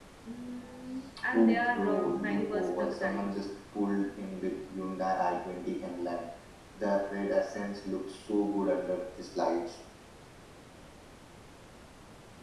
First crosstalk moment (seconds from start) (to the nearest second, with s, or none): 1 s